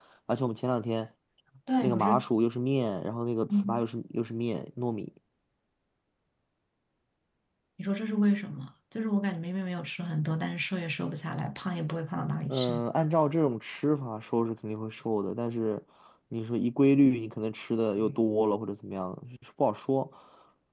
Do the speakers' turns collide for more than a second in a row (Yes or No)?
No